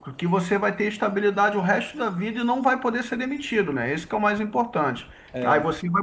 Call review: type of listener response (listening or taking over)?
listening